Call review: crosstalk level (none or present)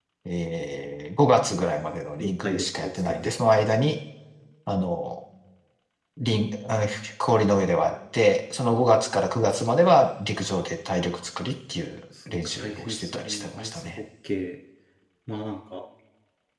present